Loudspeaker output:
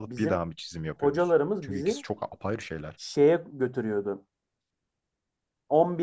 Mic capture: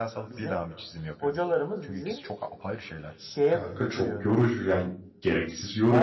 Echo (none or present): present